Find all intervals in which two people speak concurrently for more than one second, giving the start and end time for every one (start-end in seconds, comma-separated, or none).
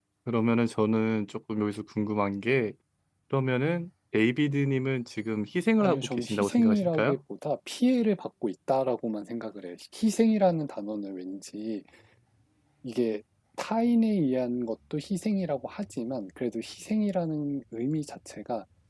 5.8-7.2